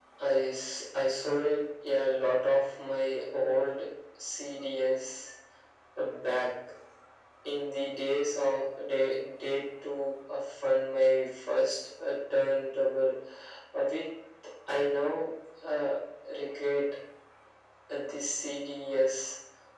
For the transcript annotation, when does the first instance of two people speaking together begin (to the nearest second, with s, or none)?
none